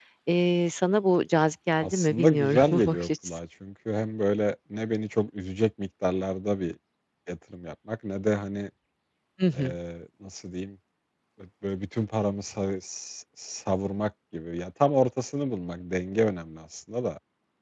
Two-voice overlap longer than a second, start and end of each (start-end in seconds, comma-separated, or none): 1.8-3.4